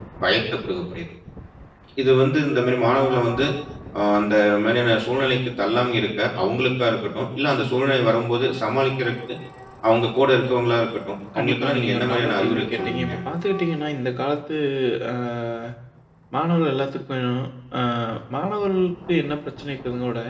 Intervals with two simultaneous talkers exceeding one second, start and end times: 11.4-13.1

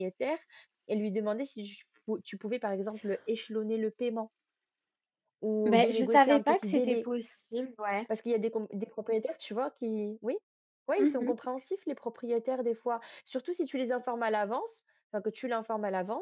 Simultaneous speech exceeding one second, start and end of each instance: 5.7-7.0

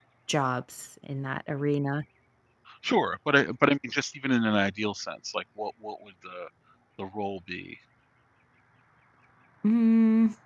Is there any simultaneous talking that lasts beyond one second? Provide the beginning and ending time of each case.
none

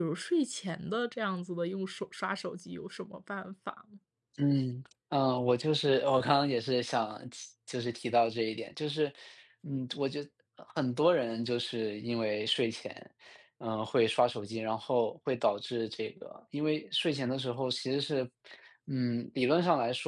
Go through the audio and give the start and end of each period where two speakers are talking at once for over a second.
none

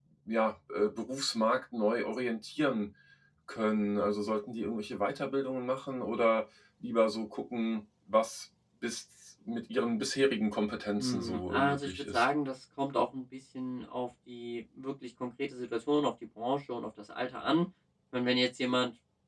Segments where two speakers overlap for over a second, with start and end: 11.0-12.2

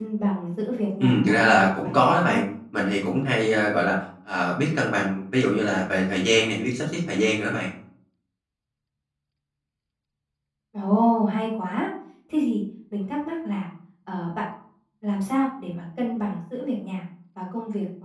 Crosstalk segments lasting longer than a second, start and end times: 1.0-2.4

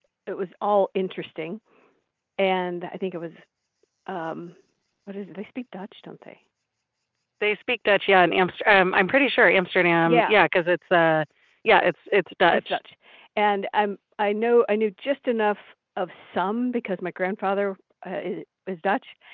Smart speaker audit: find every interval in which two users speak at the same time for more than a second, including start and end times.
none

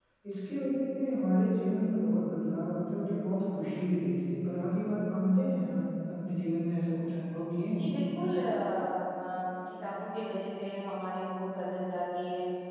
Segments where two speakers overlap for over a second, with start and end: none

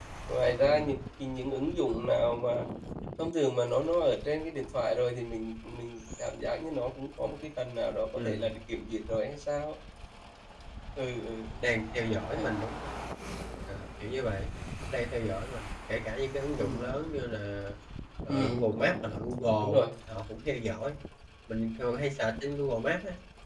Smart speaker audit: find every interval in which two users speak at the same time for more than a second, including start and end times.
none

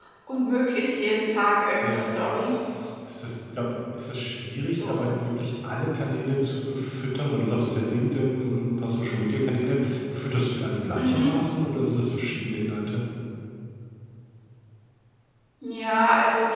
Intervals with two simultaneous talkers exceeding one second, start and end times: none

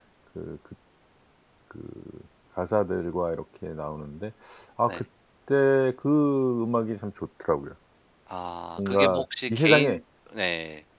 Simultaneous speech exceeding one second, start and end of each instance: 8.8-10.0

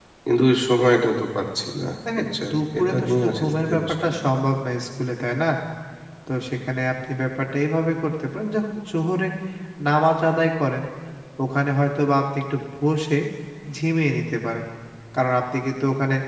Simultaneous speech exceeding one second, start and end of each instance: 2.2-4.1

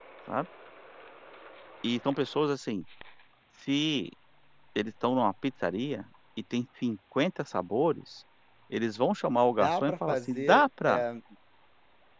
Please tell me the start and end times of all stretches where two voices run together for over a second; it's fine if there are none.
9.6-11.0

